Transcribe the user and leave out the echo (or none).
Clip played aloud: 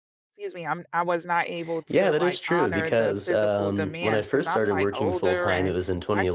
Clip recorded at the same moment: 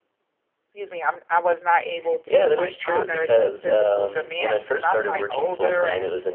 none